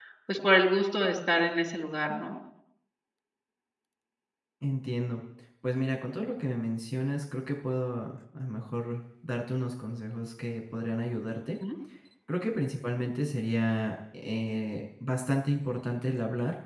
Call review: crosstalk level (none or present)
none